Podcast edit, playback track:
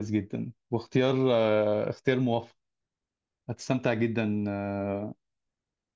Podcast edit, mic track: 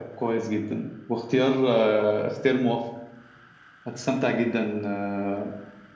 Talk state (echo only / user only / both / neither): echo only